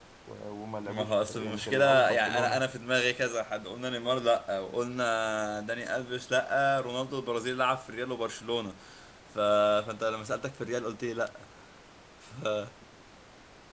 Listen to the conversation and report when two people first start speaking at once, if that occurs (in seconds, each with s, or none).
0.8 s